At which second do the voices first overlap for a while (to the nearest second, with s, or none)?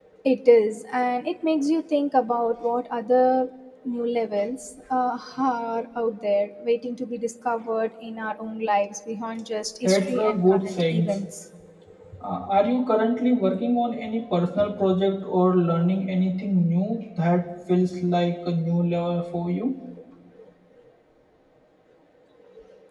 10 s